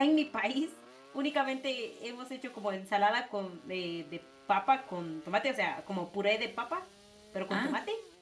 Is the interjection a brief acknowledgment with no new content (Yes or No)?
Yes